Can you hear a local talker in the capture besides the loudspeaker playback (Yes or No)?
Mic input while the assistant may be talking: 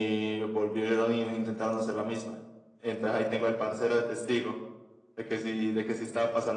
No